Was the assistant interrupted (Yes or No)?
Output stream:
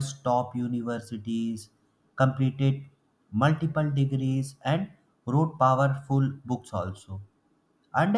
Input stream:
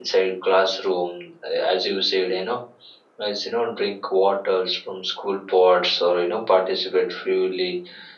Yes